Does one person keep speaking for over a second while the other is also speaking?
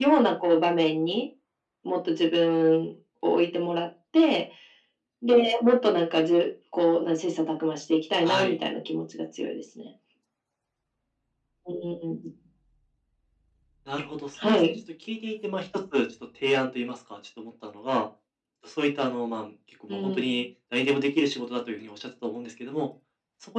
No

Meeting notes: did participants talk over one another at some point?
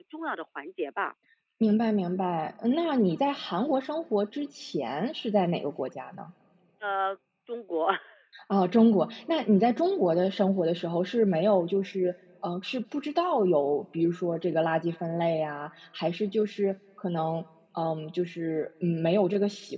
No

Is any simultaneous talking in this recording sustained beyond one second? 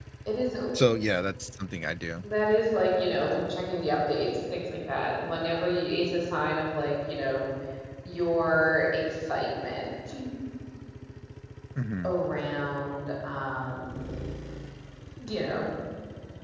No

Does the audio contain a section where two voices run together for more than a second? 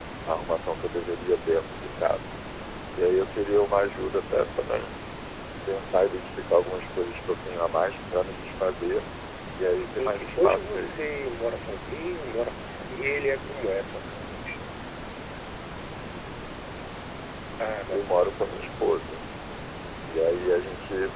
Yes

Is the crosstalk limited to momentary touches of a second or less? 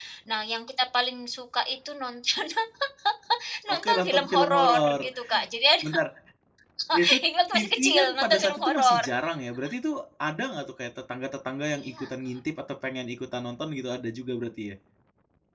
No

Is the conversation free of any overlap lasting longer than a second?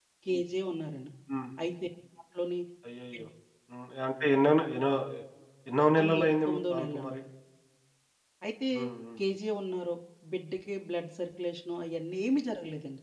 No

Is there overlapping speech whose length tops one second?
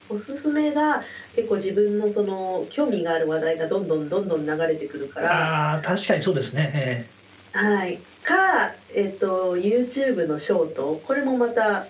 No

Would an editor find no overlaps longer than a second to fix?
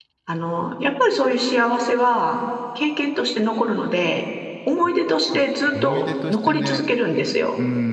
No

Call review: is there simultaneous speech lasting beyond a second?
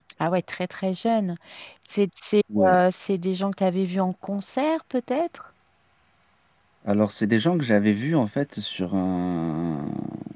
No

